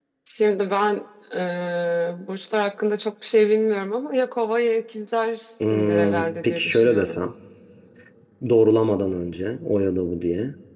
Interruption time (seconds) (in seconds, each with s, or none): 5.6 s